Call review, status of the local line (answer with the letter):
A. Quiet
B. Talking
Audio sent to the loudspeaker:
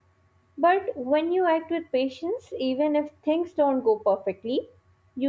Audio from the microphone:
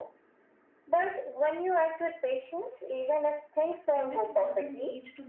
B